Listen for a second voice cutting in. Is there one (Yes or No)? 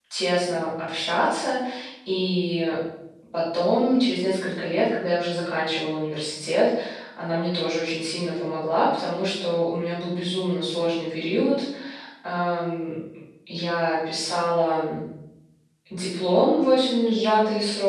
No